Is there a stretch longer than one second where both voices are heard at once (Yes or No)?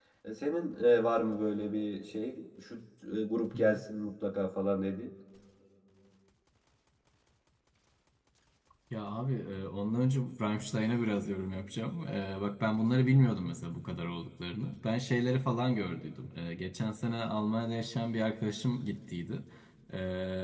No